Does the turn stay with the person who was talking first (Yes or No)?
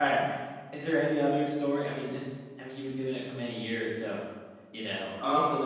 Yes